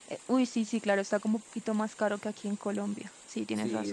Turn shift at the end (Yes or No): Yes